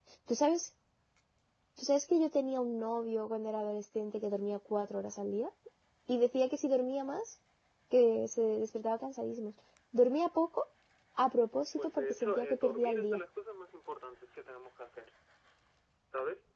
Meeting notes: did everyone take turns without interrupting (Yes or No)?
No